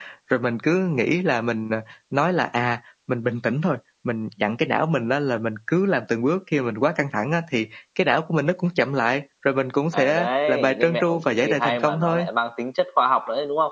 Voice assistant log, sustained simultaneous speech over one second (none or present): present